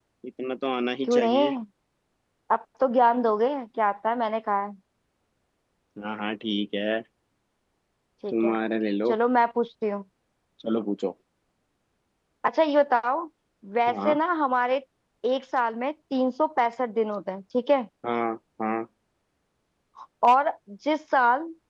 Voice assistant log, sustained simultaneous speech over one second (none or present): none